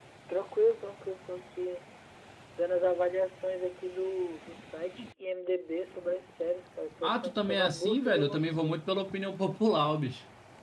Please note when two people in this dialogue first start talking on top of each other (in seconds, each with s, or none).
7.0 s